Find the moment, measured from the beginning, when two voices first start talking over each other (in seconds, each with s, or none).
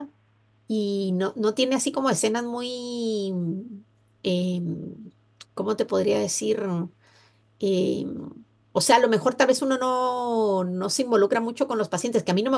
none